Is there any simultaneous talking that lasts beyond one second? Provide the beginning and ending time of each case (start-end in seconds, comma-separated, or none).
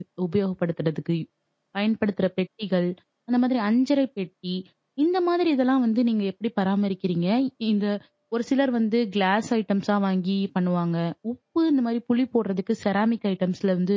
none